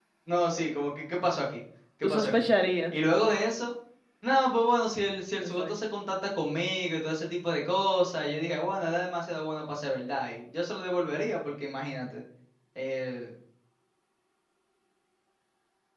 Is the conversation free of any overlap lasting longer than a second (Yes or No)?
Yes